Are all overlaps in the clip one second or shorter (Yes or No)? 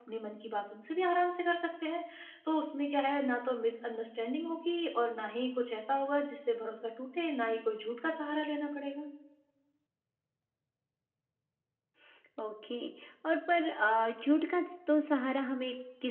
Yes